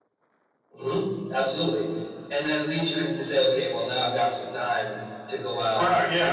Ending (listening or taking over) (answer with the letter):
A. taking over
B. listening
A